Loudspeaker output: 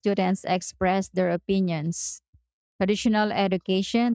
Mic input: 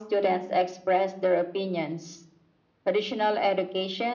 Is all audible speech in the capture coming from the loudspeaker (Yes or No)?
Yes